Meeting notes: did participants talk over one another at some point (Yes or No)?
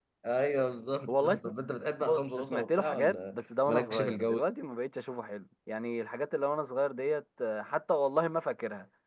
Yes